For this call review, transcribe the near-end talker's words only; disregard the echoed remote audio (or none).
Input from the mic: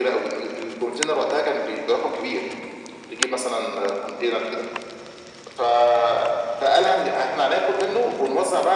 none